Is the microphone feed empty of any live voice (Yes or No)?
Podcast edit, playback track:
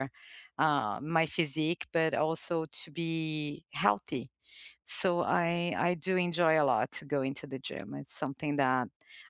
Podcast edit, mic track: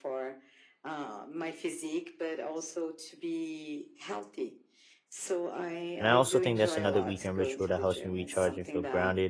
No